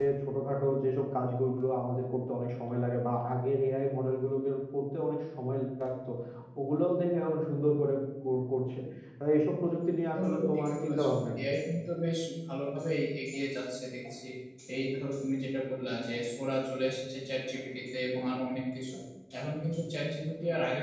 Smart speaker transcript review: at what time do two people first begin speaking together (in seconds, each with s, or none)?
10.1 s